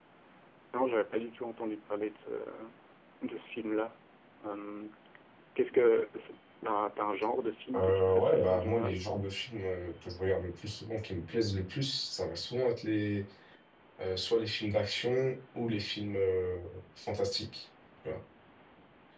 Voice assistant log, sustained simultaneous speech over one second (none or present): present